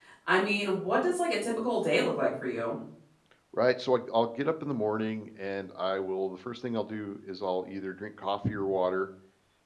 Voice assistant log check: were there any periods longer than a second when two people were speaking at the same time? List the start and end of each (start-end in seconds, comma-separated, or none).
none